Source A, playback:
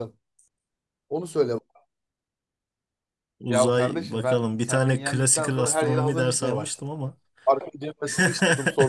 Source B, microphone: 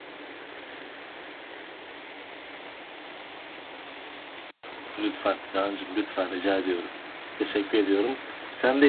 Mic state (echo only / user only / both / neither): user only